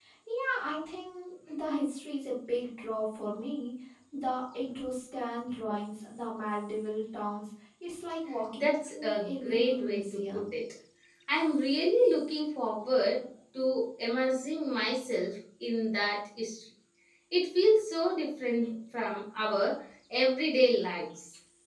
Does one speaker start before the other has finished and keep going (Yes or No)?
Yes